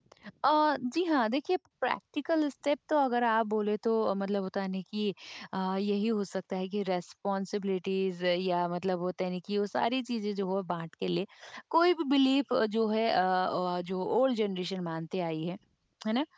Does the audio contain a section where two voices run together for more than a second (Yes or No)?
No